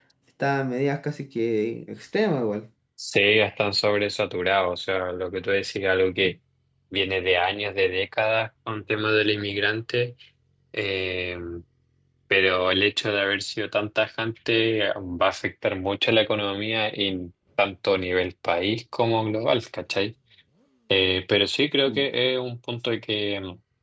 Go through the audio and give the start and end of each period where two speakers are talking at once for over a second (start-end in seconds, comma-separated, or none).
none